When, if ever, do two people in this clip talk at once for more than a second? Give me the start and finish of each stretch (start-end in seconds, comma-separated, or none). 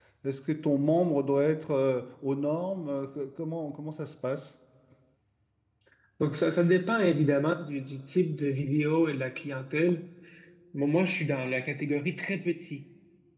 none